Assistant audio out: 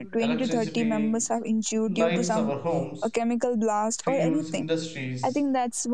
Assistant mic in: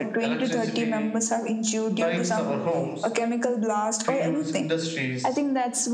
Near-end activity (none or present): none